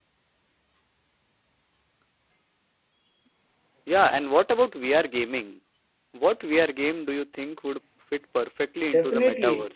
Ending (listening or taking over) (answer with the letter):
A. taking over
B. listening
A